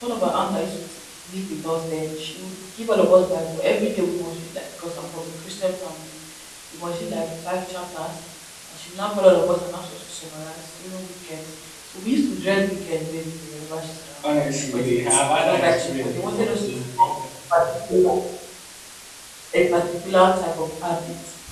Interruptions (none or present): present